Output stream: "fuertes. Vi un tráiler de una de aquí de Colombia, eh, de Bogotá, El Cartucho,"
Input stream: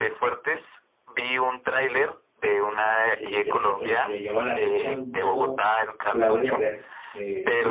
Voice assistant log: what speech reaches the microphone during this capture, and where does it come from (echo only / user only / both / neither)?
both